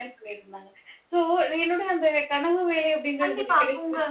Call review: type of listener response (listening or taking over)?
taking over